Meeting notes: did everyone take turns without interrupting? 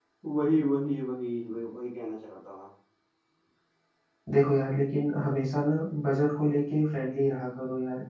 Yes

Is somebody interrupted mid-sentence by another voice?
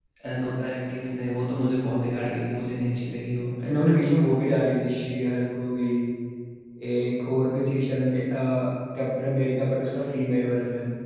No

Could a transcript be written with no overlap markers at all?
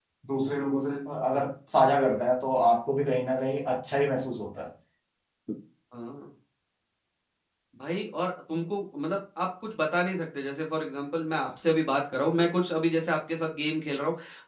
Yes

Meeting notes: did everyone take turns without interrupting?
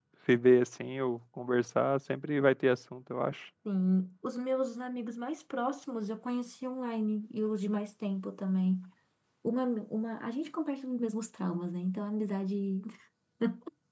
Yes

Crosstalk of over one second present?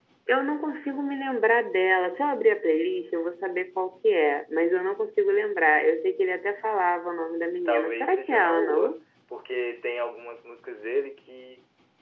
Yes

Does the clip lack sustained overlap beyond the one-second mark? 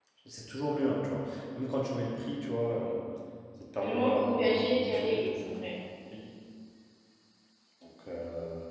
No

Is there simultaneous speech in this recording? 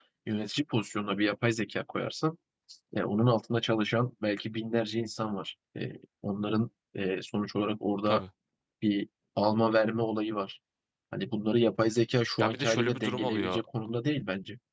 Yes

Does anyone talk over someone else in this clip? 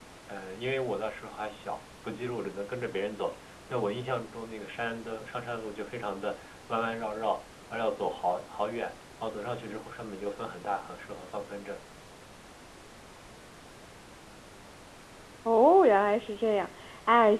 No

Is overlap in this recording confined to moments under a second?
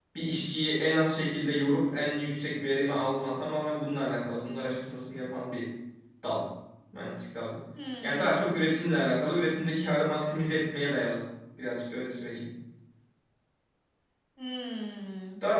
Yes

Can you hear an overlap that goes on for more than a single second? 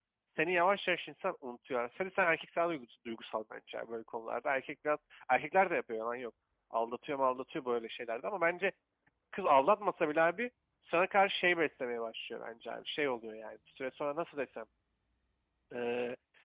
No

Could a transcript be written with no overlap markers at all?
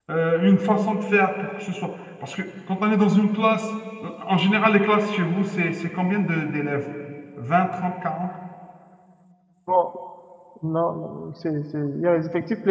Yes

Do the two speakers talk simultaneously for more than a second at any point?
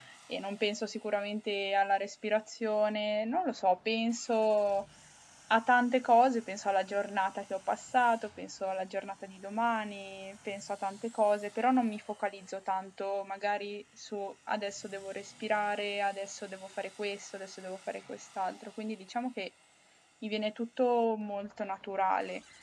No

